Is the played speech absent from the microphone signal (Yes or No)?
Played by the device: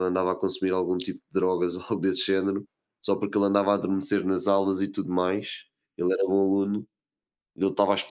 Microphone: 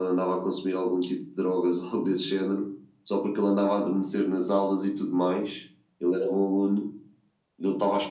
No